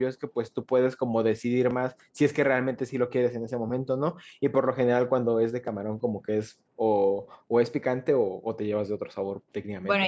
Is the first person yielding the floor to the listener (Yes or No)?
Yes